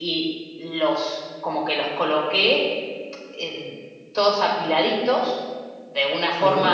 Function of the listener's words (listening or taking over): listening